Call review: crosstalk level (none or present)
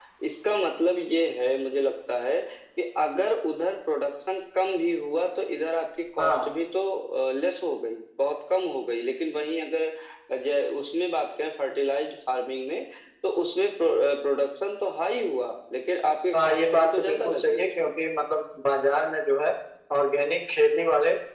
present